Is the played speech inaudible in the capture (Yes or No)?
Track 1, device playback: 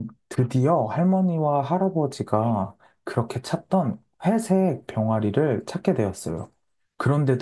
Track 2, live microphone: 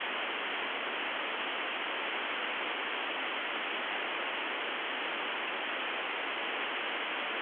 Yes